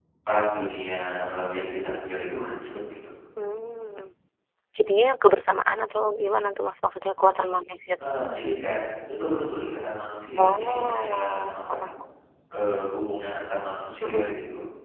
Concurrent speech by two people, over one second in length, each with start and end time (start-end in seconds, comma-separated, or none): 10.4-11.8